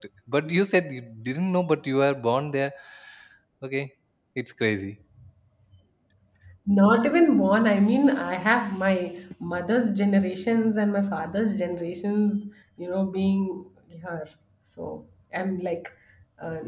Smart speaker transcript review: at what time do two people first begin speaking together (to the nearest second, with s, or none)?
none